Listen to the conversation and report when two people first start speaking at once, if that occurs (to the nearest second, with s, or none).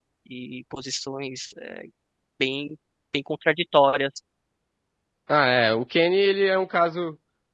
none